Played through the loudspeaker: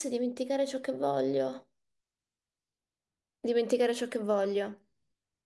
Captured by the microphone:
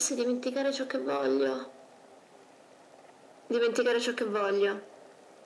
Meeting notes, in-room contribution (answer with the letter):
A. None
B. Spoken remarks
A